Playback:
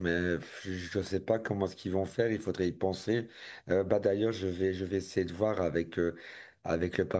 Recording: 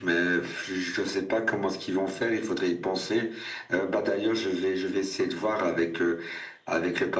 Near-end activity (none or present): none